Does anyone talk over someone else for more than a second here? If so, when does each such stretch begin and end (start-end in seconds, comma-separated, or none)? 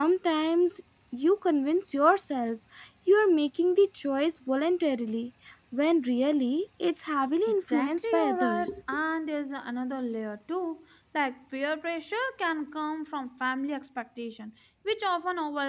7.5-8.7